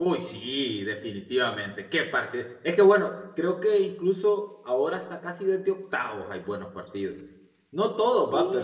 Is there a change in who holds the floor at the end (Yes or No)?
No